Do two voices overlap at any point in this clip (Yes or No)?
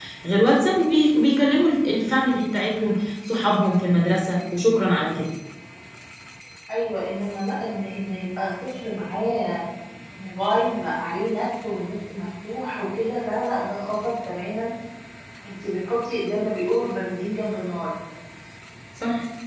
No